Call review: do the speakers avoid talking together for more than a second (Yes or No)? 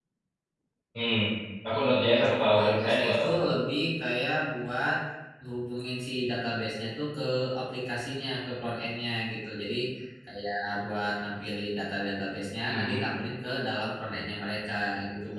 No